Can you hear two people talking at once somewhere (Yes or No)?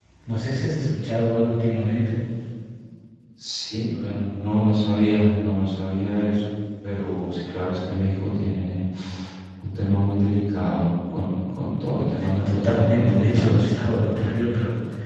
Yes